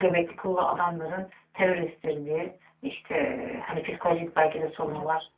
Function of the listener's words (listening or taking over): listening